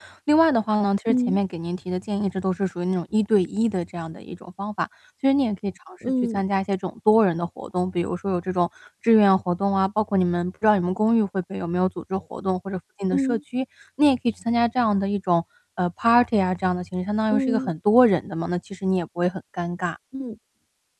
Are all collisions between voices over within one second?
Yes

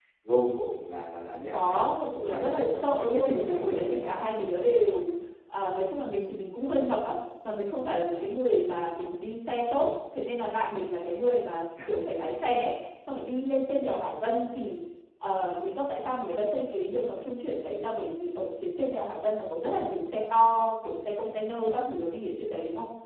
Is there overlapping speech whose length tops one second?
Yes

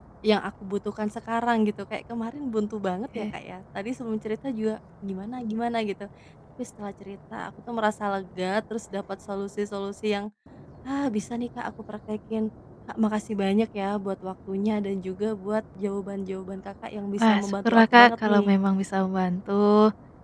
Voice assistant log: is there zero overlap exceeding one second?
No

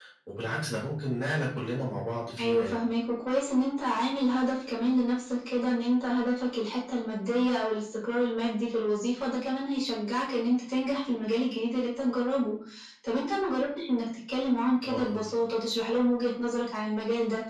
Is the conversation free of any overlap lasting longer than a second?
Yes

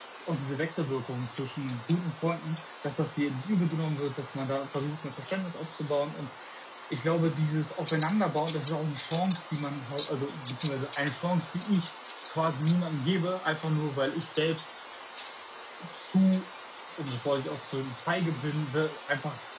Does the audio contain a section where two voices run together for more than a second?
No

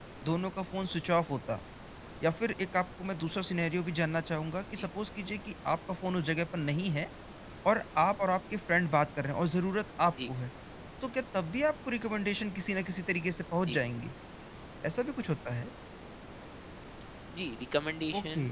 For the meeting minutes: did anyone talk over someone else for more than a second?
No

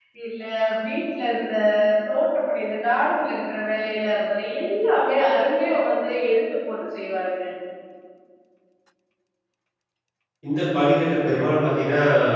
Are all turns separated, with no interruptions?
Yes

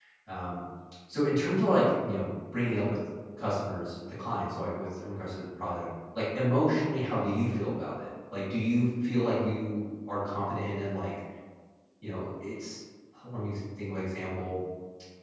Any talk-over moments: No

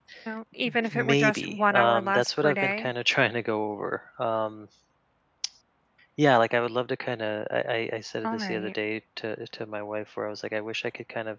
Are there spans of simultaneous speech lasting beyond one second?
Yes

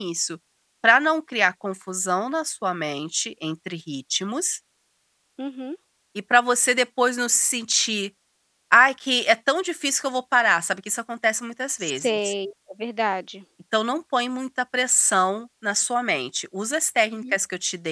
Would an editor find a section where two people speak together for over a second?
No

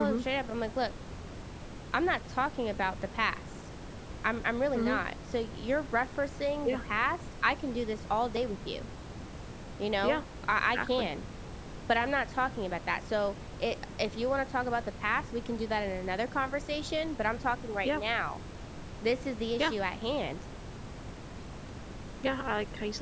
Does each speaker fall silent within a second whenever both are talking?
Yes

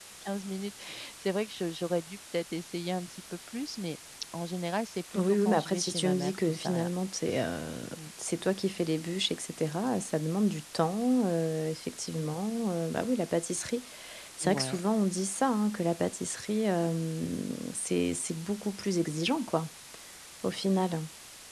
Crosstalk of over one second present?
Yes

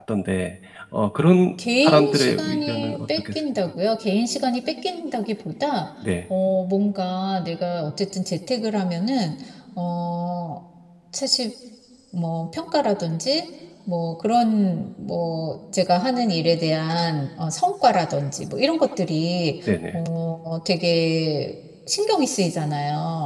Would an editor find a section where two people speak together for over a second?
Yes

